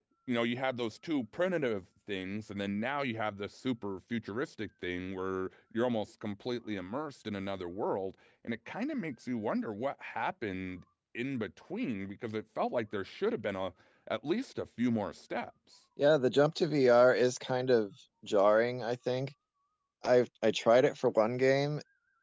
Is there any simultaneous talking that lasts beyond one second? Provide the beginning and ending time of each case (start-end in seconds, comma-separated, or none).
none